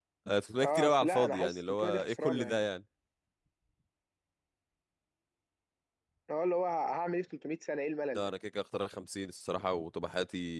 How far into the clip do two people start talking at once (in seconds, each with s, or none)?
0.6 s